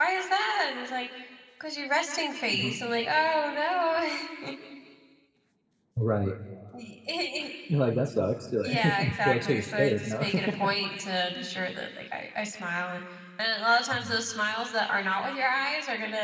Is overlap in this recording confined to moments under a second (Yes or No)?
No